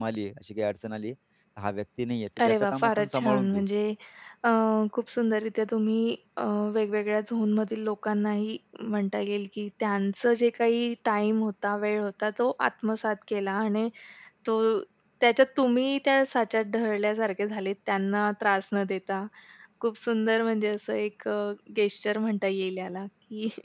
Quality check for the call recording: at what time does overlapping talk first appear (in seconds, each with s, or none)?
2.4 s